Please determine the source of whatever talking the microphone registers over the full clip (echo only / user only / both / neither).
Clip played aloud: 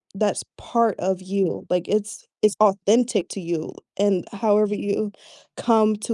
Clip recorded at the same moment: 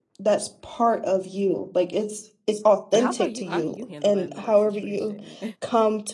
both